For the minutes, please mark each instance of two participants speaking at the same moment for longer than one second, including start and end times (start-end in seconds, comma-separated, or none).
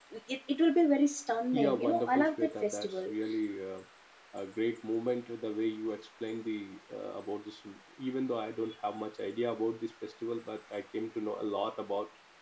1.5-3.1